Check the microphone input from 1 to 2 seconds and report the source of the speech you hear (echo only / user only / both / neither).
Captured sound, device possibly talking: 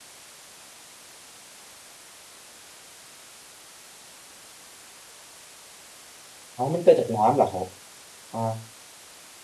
neither